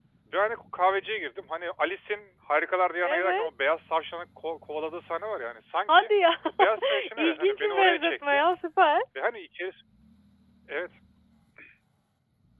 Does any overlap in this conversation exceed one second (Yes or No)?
Yes